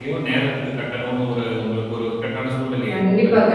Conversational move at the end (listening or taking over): taking over